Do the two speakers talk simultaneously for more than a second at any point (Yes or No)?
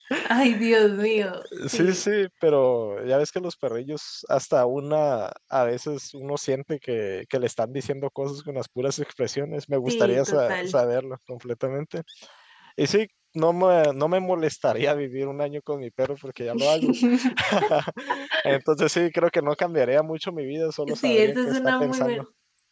Yes